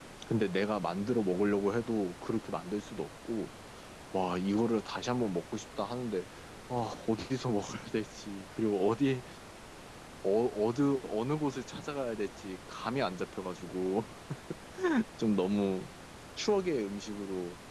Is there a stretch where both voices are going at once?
No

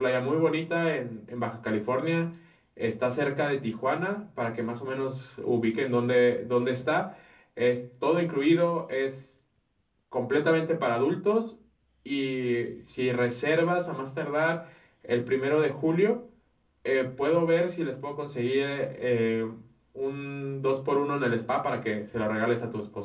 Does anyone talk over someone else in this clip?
No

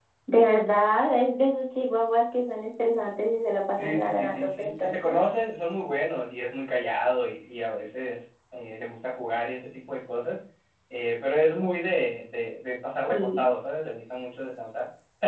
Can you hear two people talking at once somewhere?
Yes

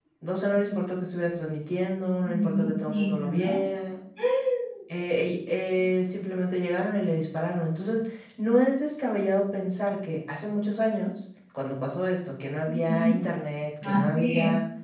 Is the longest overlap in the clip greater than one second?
Yes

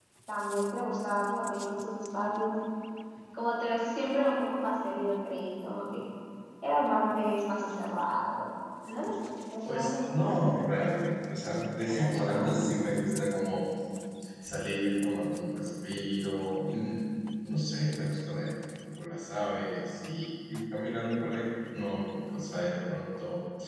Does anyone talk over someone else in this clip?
Yes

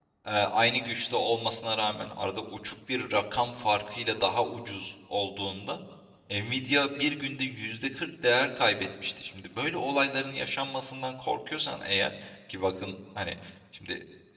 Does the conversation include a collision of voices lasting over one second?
No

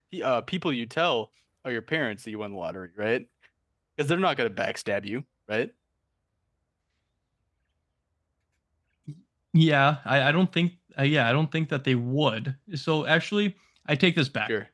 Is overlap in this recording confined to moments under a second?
Yes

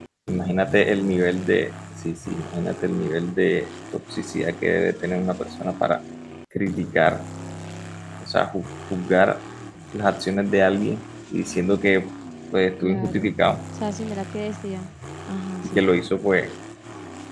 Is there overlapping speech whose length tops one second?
No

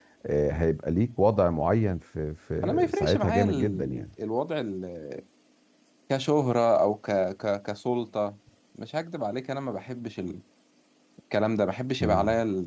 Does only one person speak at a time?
No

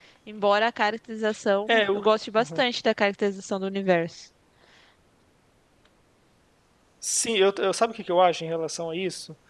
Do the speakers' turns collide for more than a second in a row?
No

